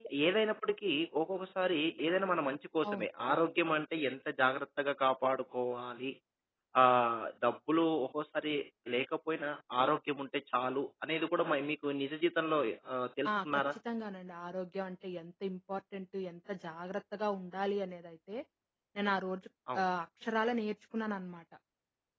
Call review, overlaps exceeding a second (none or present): none